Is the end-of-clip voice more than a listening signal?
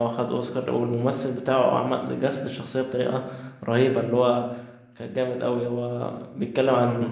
No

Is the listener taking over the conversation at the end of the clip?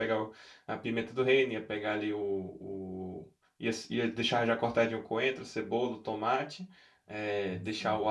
No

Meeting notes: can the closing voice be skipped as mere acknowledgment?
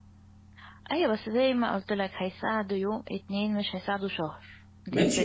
No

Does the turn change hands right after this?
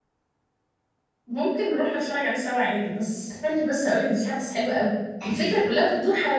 No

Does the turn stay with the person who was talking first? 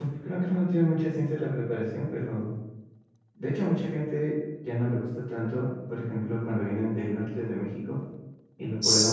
Yes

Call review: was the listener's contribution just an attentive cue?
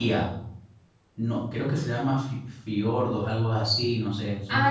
No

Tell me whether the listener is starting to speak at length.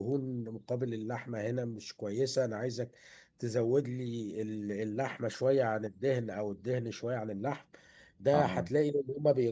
No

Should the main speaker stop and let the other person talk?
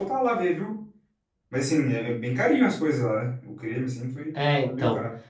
Yes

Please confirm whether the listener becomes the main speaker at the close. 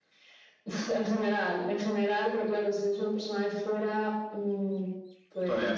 No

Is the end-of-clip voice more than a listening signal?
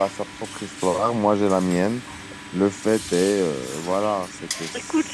Yes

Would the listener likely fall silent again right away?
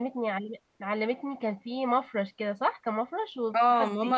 No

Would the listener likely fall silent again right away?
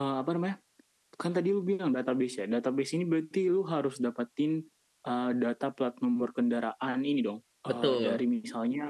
Yes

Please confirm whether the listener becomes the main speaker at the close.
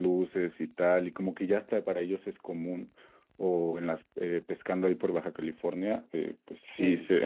No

